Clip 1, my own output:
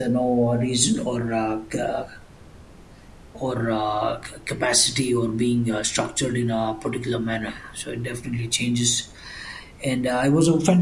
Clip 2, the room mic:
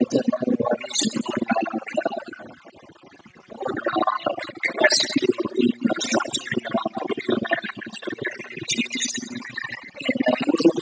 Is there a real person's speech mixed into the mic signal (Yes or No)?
No